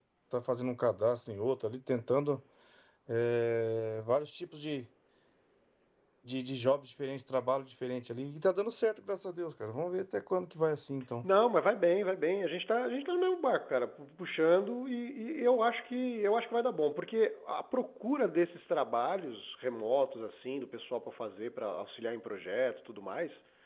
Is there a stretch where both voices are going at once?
No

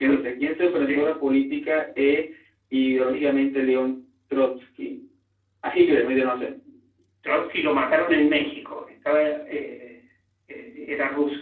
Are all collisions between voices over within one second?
Yes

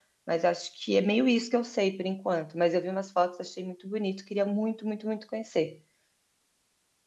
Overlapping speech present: No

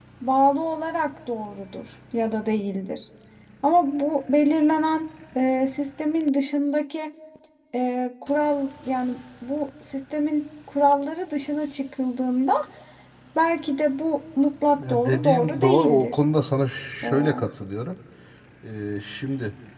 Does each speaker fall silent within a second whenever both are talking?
No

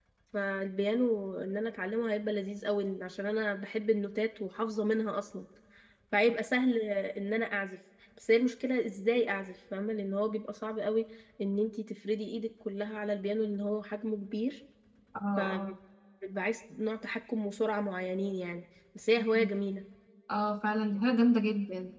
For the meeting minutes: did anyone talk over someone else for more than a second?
No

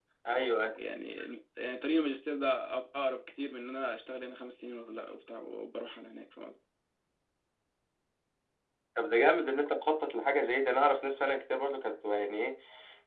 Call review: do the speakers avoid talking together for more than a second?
Yes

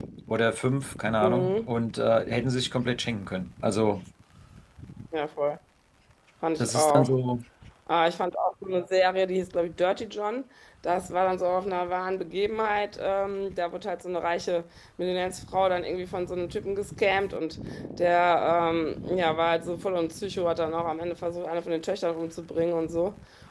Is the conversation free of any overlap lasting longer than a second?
Yes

